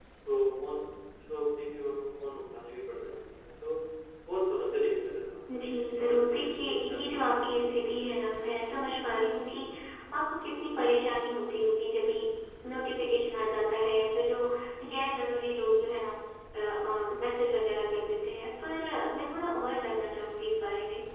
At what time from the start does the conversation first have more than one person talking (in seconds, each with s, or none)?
5.5 s